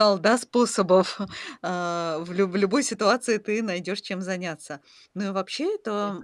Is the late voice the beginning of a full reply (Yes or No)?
No